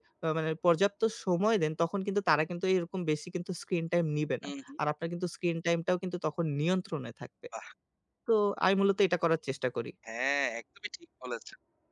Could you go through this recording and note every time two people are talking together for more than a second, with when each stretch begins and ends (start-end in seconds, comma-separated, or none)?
none